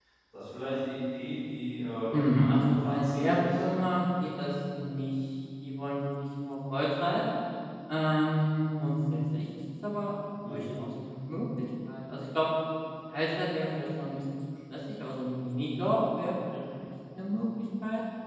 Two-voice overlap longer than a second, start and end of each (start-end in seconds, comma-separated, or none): 2.1-3.6